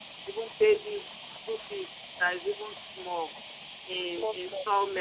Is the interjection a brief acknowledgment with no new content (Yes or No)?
Yes